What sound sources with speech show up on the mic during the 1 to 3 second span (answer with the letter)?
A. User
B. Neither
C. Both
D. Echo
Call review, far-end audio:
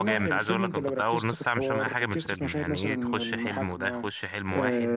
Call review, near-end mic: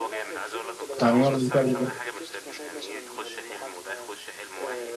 C